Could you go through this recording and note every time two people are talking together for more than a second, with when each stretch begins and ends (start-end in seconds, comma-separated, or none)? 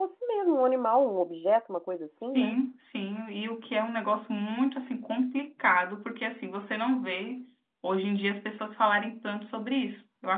none